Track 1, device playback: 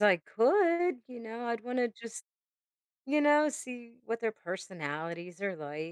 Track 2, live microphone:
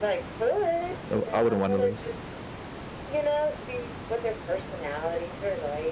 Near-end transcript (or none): no, I wouldn't wanna leave.